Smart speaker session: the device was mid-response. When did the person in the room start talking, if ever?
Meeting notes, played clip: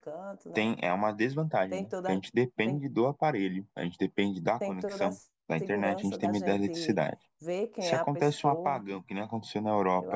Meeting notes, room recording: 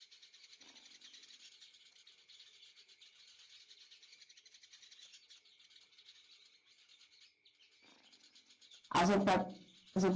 8.9 s

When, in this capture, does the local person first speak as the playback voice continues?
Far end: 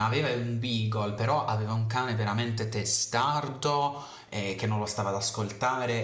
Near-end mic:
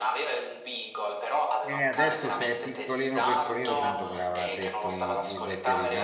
1.6 s

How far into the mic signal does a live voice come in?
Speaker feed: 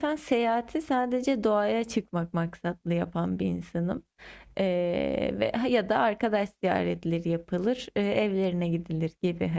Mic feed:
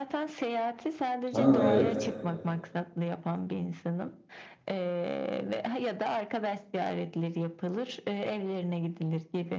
1.3 s

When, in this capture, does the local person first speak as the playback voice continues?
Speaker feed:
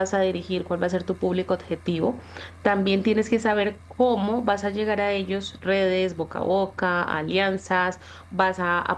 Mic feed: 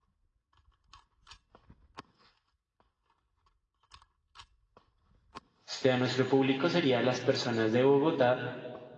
5.7 s

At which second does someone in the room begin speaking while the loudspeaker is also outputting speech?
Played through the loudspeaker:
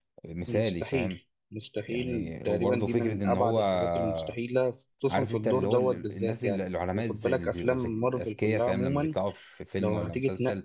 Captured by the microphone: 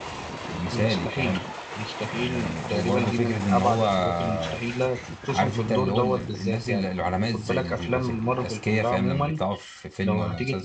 none

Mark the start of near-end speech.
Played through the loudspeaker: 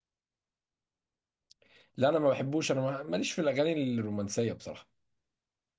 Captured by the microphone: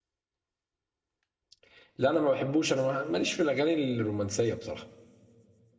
none

